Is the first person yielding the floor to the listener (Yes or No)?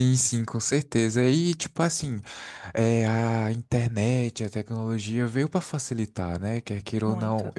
No